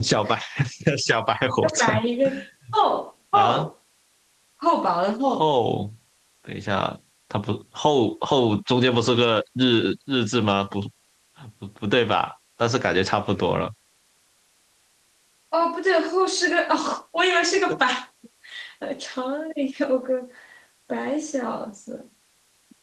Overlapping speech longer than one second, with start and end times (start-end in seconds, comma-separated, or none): none